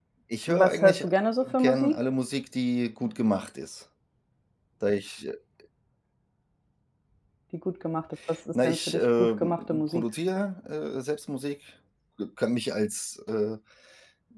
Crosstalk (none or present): present